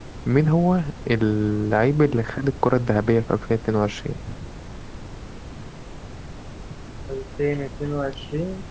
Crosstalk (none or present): none